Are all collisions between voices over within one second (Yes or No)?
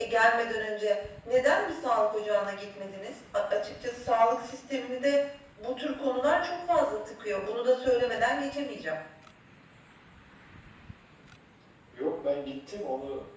Yes